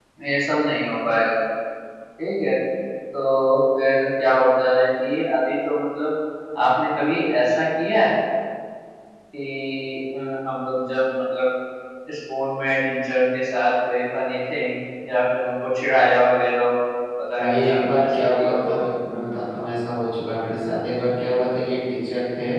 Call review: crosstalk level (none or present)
present